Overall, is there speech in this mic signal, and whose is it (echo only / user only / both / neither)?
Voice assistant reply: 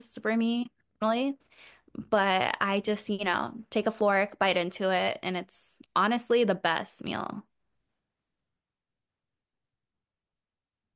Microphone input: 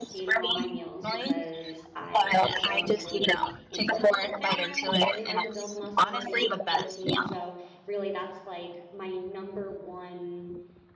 both